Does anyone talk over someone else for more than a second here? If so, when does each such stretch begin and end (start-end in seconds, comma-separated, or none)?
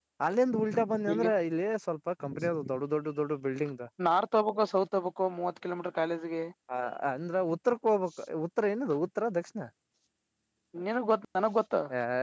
none